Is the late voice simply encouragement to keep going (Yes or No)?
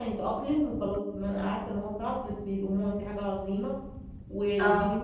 Yes